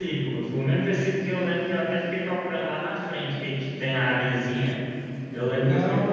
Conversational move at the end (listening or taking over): taking over